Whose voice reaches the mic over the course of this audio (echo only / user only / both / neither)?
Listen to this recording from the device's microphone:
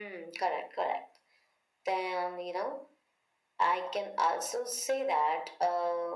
echo only